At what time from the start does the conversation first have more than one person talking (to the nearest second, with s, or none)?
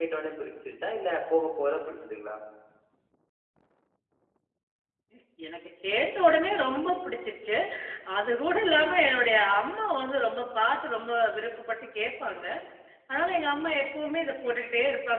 none